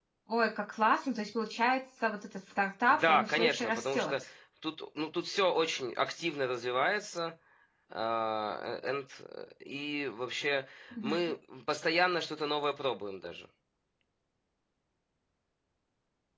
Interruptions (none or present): present